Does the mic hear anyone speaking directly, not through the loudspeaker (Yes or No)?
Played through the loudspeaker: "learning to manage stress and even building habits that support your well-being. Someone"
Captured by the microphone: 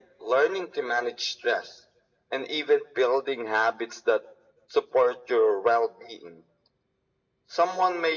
No